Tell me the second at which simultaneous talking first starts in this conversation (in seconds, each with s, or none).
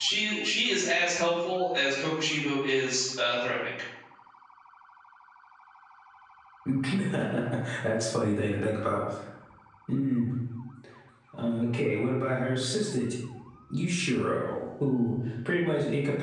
none